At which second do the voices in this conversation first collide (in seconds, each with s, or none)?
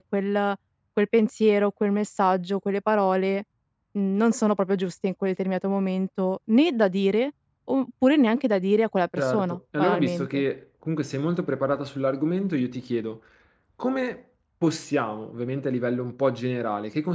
9.2 s